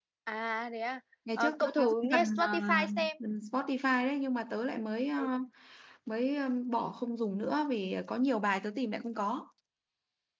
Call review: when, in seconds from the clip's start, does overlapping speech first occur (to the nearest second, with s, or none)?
1 s